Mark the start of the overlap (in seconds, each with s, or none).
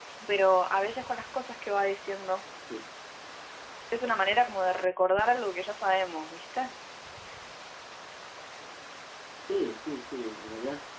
none